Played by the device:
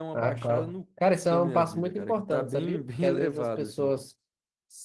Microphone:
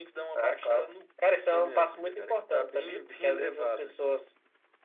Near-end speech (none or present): none